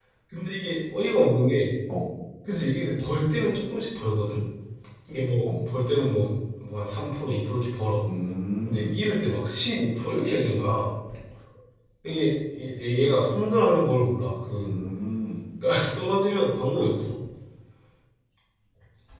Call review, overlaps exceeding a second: none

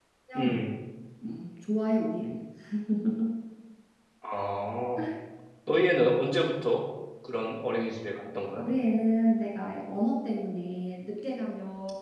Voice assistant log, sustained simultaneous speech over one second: none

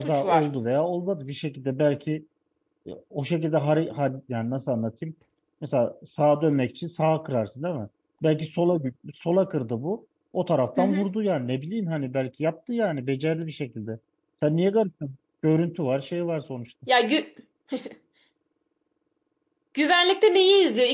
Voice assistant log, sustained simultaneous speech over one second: none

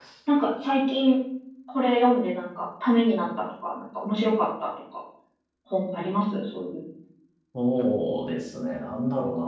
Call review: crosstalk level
none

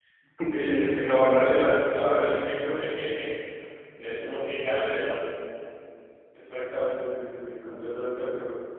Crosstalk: present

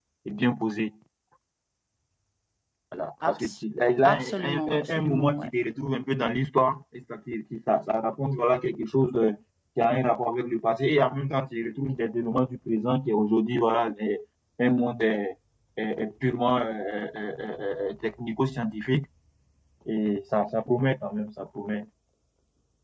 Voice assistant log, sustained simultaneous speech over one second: present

